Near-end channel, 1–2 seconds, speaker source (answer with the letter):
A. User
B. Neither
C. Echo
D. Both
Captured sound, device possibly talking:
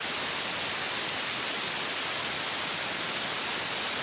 B